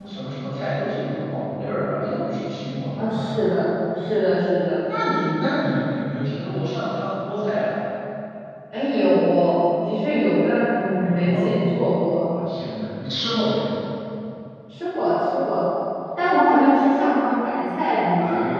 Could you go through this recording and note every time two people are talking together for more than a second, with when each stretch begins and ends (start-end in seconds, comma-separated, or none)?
none